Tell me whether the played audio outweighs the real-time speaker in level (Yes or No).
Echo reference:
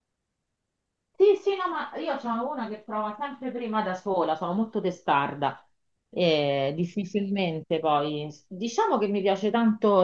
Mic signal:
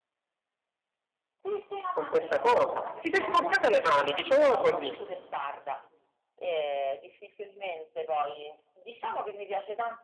No